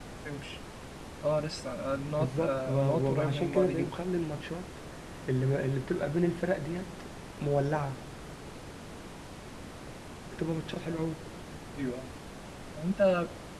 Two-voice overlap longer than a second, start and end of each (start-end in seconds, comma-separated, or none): 2.2-4.0